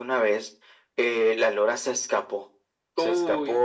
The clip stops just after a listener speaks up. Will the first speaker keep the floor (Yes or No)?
Yes